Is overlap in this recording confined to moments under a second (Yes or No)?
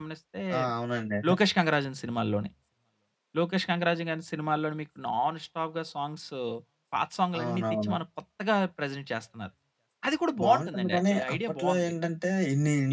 No